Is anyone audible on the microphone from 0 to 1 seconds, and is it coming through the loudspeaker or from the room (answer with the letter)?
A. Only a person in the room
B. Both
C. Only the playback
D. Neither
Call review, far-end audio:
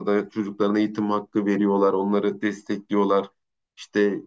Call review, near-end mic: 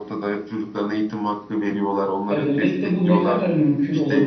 C